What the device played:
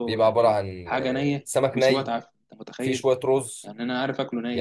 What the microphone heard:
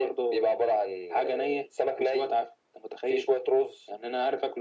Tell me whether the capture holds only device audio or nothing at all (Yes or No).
Yes